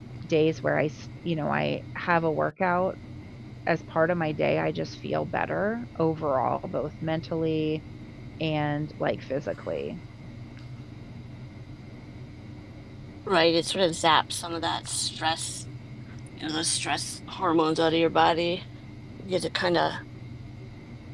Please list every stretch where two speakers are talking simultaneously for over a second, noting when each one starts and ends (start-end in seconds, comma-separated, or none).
none